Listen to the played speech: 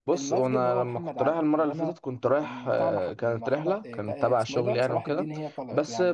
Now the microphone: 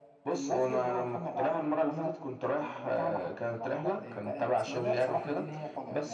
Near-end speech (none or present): none